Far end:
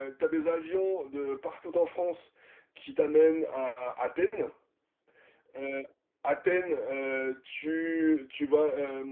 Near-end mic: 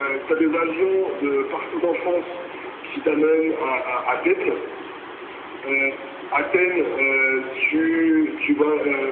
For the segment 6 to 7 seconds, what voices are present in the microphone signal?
echo only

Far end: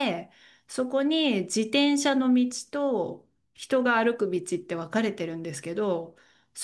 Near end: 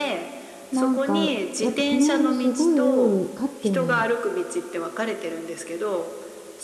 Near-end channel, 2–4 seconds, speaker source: both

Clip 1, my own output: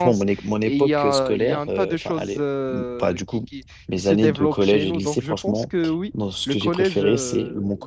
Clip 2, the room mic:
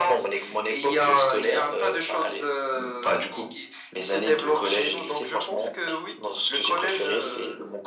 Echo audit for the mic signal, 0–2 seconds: echo only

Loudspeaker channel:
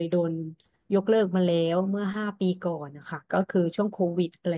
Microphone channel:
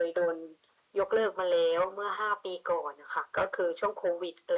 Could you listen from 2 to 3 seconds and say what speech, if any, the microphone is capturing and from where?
echo only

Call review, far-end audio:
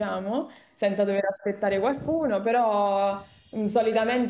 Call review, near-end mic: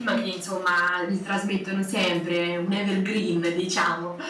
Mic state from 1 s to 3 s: user only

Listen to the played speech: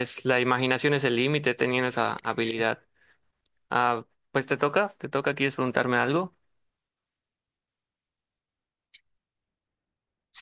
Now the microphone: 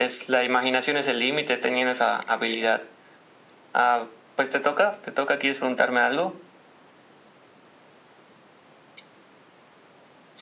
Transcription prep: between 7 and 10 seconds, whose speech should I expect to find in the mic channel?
neither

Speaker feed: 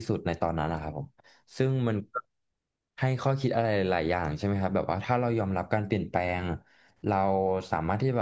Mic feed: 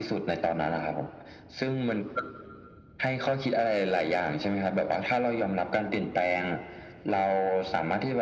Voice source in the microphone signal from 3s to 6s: echo only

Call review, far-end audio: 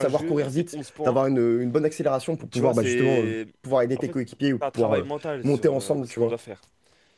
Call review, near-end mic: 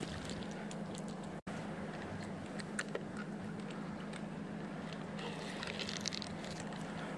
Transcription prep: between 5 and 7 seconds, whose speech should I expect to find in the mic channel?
neither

